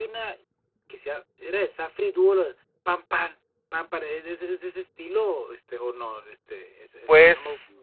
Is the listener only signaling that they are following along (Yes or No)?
No